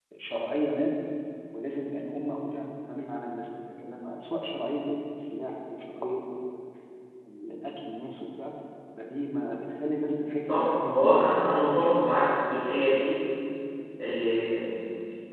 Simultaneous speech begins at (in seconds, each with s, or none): 10.5 s